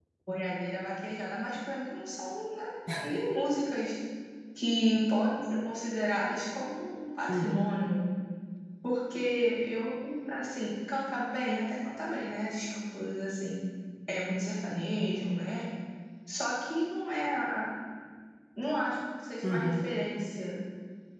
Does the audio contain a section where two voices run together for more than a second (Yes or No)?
No